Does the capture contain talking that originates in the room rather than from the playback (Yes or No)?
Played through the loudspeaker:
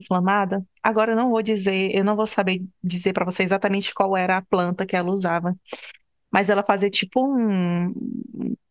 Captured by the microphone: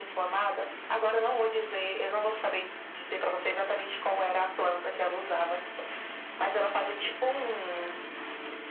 No